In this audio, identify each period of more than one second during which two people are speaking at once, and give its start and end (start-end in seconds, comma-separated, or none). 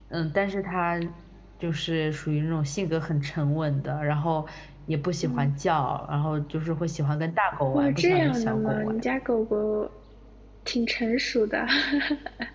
7.7-9.0